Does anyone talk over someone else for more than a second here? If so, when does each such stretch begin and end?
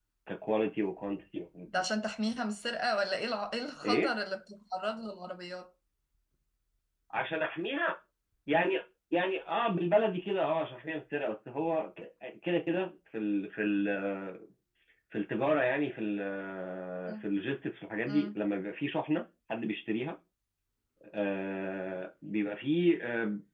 none

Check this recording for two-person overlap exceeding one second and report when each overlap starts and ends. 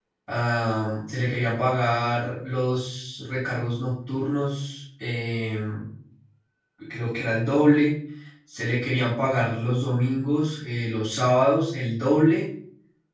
none

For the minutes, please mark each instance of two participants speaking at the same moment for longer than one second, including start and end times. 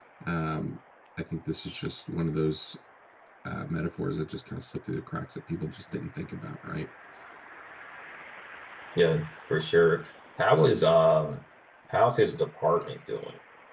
none

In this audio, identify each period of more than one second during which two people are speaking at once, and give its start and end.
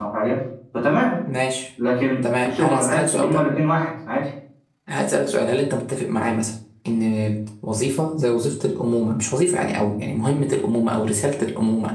2.2-3.5

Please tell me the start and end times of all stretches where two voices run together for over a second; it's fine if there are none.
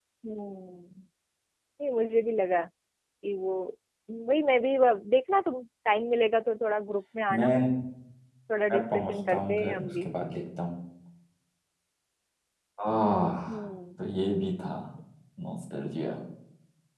8.7-10.1

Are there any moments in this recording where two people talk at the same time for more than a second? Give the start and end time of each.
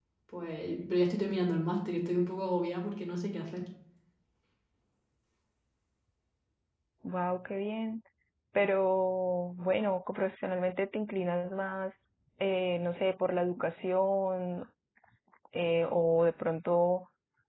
none

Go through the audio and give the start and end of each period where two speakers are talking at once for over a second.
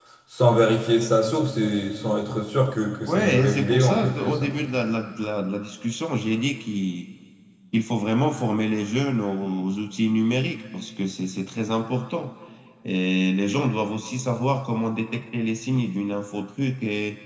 3.1-4.5

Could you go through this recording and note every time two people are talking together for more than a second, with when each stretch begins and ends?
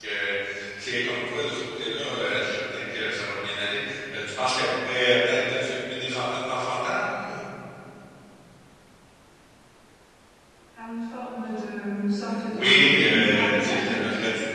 12.5-14.0

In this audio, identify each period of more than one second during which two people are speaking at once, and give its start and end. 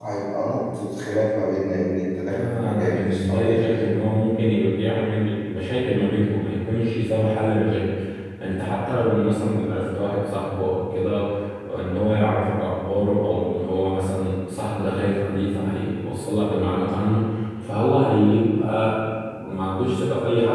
2.3-3.9

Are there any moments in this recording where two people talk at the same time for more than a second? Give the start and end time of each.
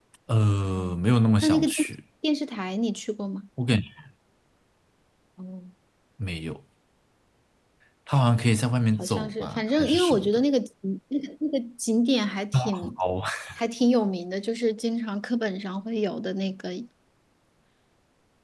9.0-10.4

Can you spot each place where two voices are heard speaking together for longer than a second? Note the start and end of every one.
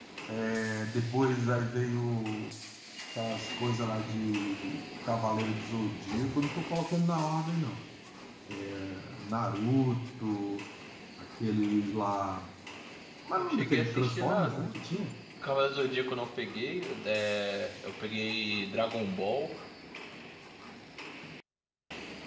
13.4-15.0

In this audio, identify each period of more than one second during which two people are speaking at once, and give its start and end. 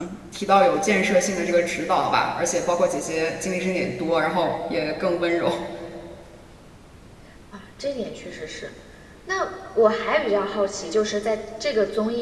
none

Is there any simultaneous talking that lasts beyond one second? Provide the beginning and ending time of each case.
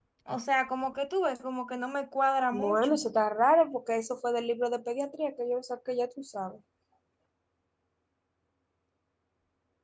none

